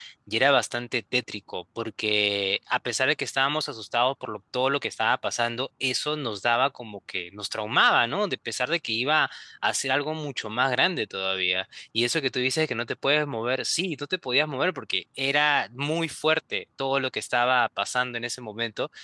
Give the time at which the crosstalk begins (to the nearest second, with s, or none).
none